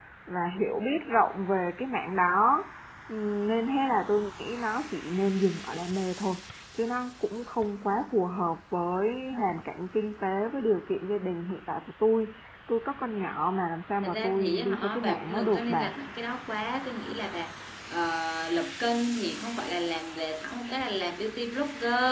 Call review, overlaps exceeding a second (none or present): present